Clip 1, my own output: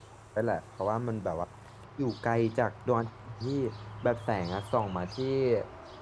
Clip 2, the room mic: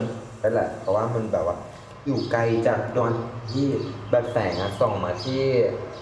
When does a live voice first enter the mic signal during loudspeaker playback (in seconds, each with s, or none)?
none